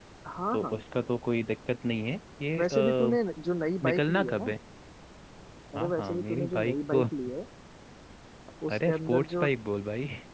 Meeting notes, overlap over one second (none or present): present